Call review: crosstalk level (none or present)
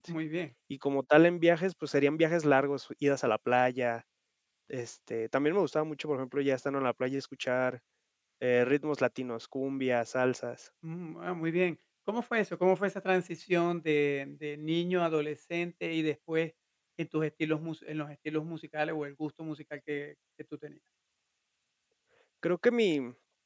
none